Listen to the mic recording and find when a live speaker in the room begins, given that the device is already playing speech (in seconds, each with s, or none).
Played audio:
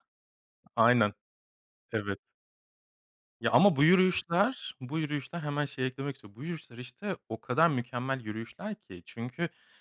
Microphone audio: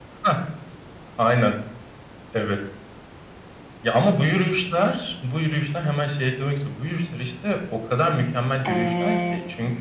8.7 s